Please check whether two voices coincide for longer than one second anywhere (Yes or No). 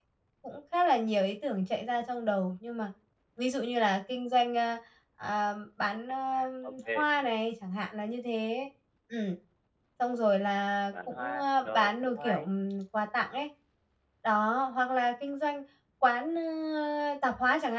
Yes